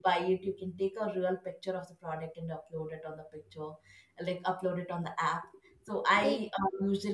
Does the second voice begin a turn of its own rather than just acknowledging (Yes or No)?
No